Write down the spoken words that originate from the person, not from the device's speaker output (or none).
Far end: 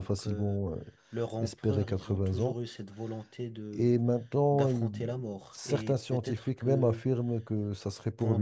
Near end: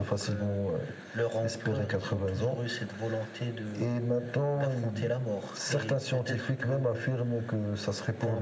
none